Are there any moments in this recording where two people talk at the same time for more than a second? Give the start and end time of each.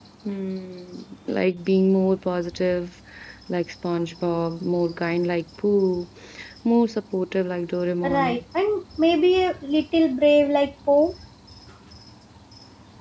none

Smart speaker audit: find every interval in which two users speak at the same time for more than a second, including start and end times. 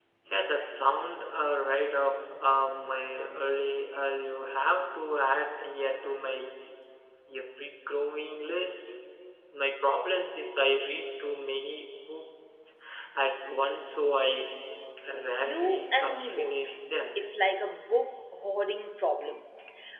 15.4-16.7

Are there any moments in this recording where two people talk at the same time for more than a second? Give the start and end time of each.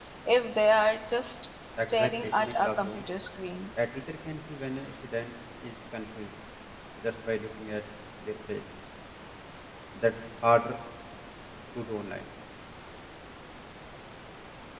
1.8-3.0

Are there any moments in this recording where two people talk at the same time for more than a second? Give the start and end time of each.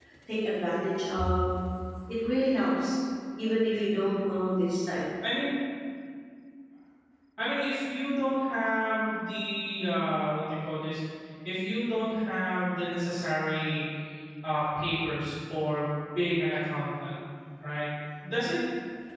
none

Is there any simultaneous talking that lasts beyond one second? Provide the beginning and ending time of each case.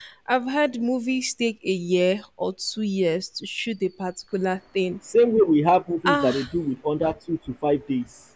none

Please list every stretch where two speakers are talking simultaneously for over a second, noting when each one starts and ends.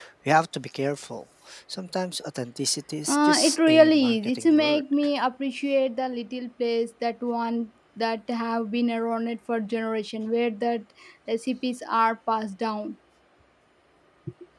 3.1-4.8

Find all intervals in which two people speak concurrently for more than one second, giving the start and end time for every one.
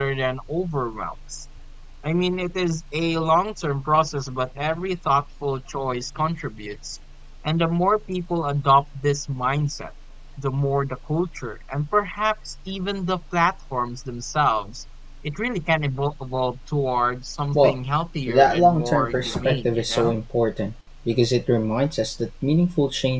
18.3-20.1

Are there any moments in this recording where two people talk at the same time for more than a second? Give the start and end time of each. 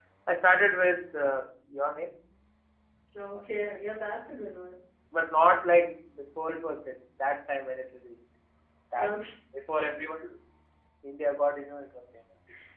none

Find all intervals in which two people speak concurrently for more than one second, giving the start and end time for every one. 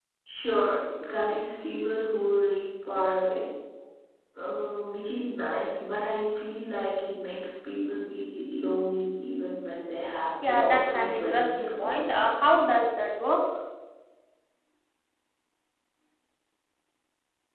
10.5-12.3

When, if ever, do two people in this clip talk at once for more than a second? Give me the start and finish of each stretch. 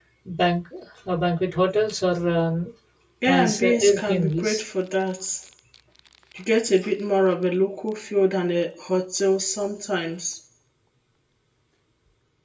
3.3-4.6

